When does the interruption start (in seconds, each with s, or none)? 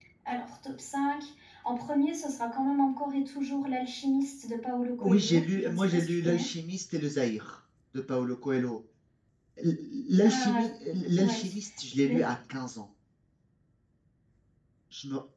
5.0 s